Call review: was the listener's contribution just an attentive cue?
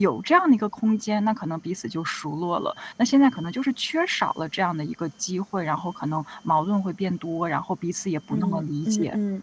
No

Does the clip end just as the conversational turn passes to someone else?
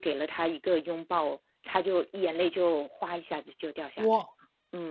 Yes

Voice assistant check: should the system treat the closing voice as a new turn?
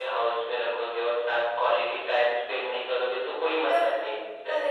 Yes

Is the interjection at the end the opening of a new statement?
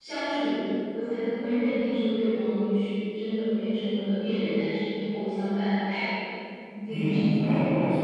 Yes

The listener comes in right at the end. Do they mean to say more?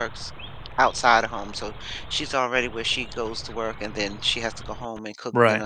No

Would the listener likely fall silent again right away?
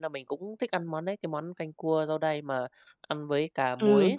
No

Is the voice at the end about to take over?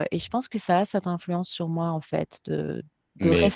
No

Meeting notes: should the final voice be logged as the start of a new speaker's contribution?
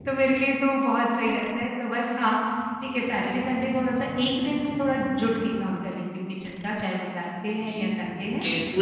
Yes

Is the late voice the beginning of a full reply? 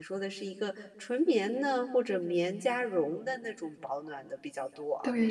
Yes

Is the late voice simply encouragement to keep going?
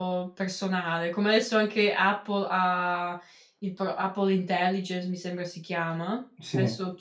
Yes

